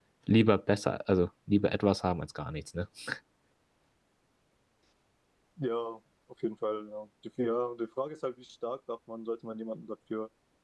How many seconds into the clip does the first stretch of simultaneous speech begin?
none

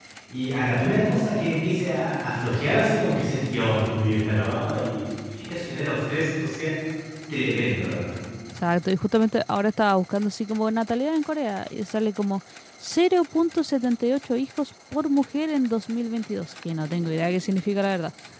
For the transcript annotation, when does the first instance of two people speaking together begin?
none

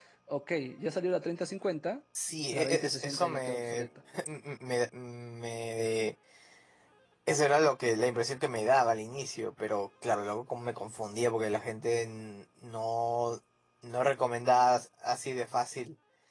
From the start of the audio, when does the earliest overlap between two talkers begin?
2.5 s

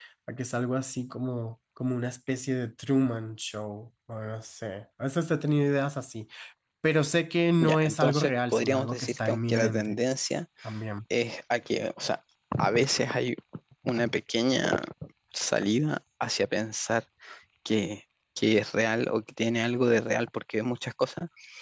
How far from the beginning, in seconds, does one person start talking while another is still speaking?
7.6 s

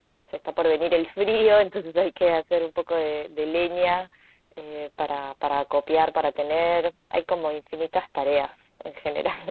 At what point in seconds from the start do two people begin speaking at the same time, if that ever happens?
none

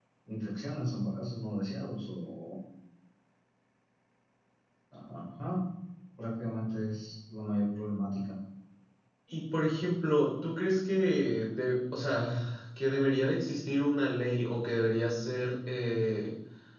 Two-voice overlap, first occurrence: none

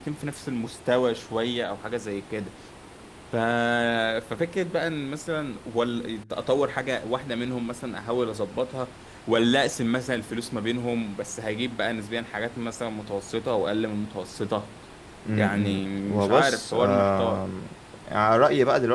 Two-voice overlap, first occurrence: 15.3 s

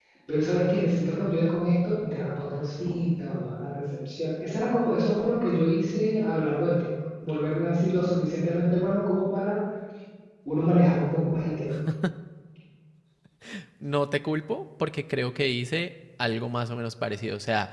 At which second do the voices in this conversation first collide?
none

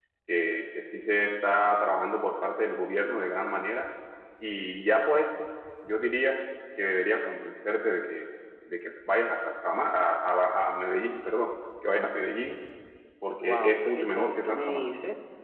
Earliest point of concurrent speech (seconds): 13.3 s

